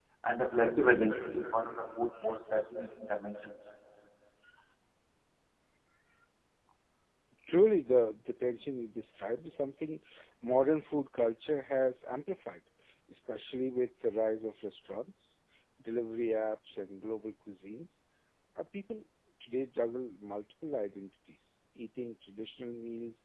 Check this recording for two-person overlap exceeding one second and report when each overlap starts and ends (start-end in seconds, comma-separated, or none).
none